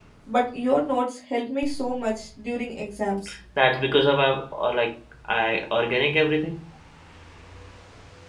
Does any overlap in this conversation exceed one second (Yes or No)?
No